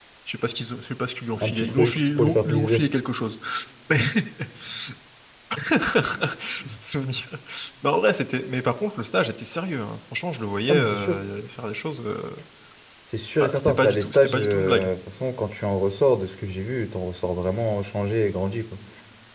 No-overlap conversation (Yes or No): No